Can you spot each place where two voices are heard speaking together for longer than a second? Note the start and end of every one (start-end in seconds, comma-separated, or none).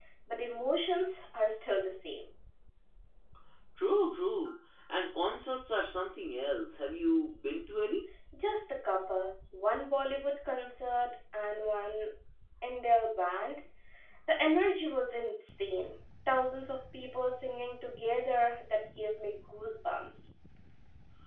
none